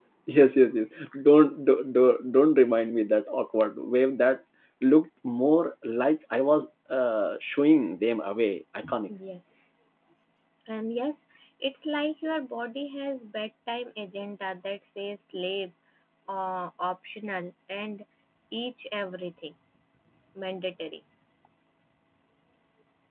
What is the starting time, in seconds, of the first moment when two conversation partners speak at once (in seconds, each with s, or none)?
none